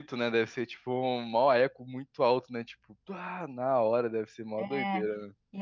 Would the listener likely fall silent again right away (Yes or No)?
No